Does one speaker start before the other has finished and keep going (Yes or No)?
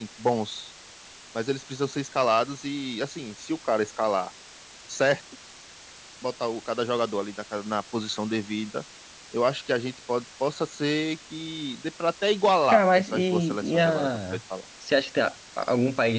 Yes